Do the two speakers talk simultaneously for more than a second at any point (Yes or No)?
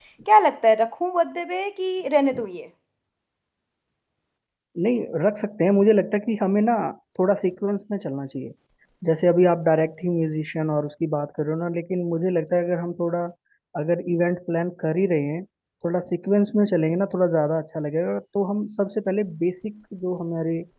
No